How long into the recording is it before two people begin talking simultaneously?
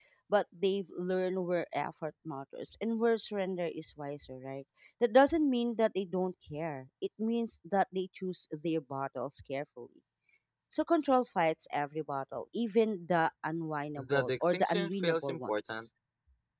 14.0 s

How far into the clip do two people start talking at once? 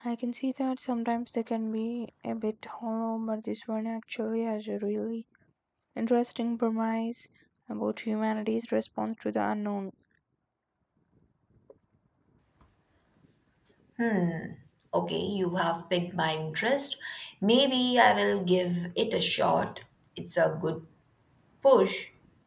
none

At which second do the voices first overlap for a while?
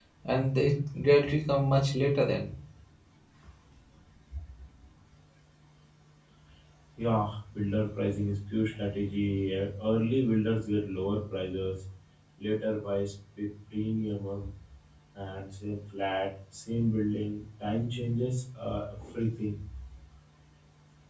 none

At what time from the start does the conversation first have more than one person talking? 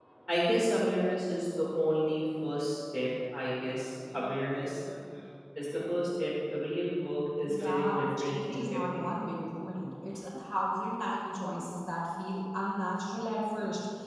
7.5 s

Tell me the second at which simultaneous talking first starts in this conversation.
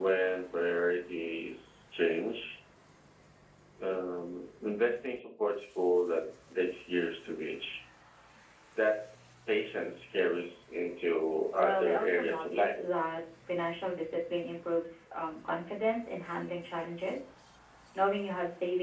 11.5 s

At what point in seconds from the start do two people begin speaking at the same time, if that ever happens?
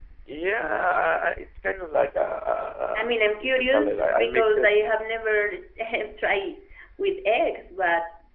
2.9 s

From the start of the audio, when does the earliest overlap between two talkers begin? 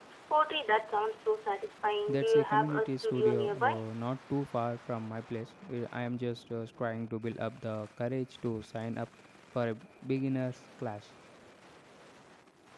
2.1 s

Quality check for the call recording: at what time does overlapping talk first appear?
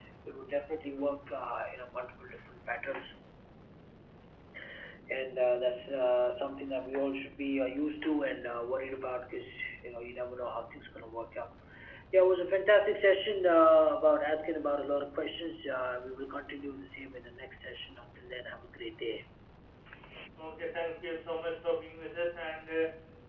none

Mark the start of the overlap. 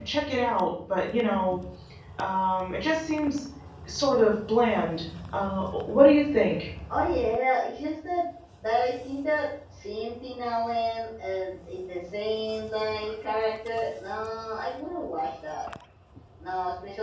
none

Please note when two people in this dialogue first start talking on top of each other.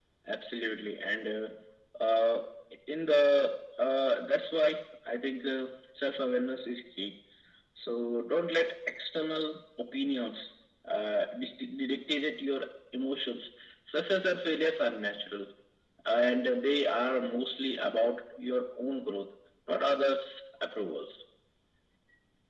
none

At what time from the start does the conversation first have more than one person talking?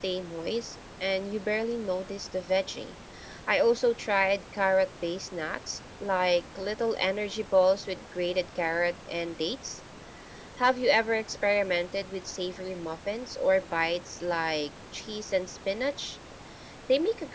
none

